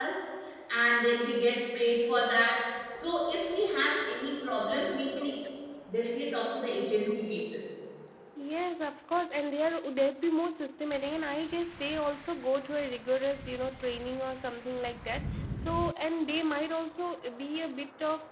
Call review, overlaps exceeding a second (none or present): none